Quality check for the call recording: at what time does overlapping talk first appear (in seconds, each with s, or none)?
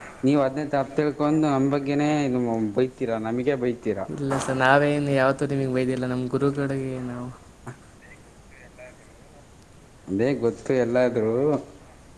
none